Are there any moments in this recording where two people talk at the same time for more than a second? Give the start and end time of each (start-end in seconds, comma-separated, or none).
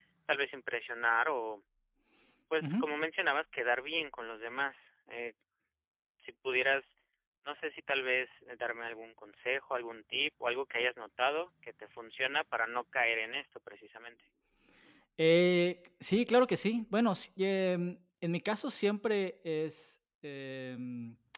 none